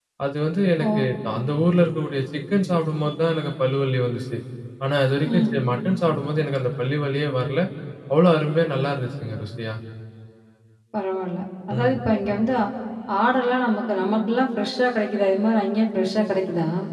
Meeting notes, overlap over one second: none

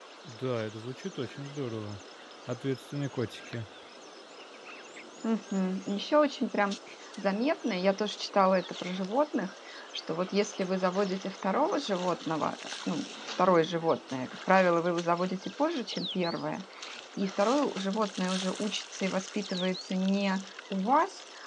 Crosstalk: none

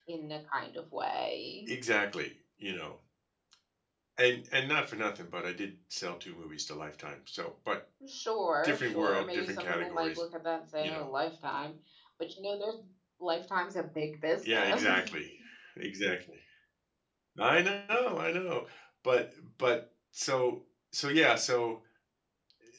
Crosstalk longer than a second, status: present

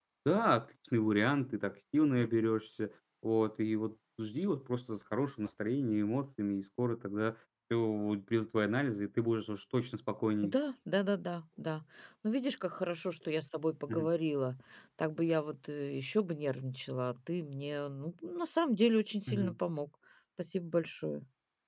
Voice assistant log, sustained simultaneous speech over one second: none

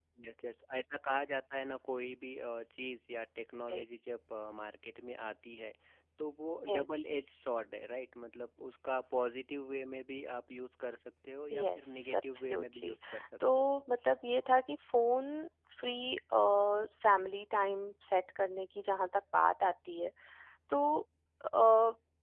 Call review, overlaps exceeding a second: present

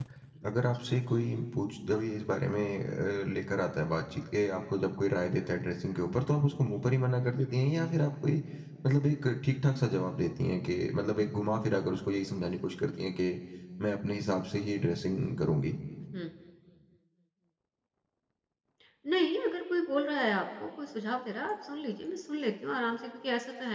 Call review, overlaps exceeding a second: none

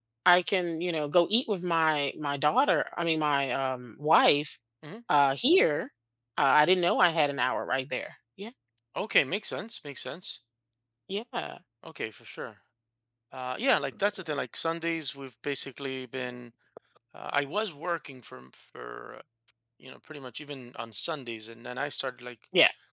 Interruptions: none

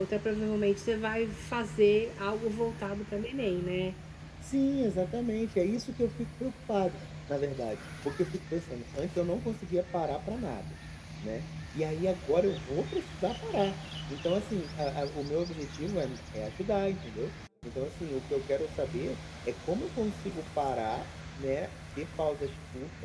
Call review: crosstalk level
none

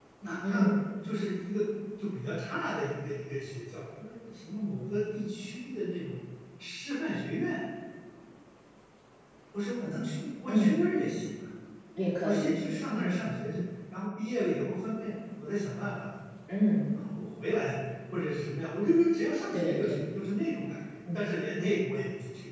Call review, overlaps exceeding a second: none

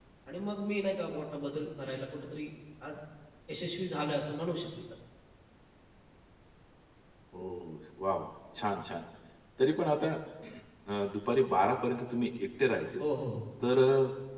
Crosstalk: none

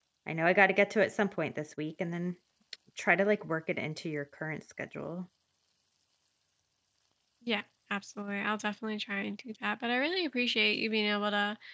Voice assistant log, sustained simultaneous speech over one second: none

